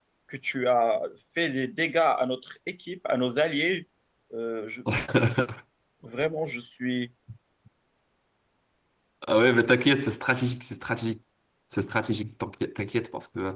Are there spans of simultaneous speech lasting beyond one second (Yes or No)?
No